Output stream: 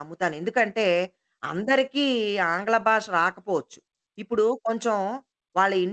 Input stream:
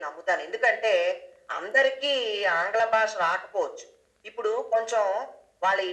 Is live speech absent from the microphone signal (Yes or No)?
Yes